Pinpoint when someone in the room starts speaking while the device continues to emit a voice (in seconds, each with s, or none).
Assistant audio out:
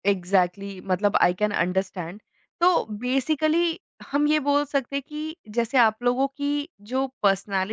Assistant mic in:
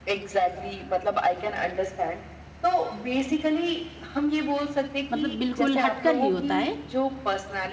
5.1 s